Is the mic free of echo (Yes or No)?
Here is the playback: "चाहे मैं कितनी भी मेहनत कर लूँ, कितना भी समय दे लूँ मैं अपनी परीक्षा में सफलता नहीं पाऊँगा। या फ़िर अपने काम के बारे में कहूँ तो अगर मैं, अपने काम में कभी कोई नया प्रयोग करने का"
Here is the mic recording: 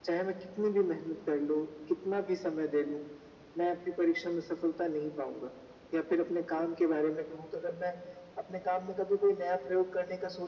No